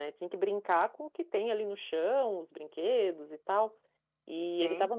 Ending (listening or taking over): listening